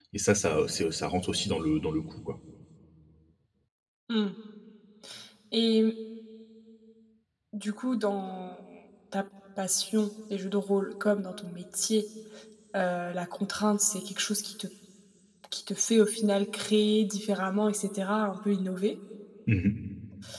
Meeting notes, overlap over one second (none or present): none